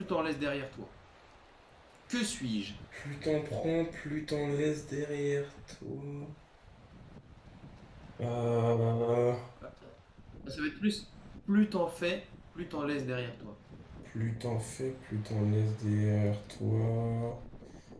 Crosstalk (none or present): none